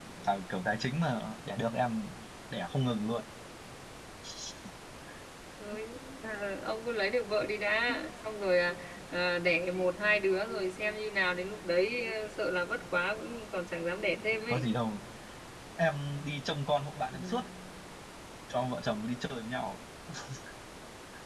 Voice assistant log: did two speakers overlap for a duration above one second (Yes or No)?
No